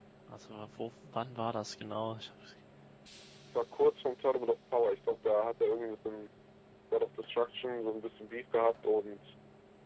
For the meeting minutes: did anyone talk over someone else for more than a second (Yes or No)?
No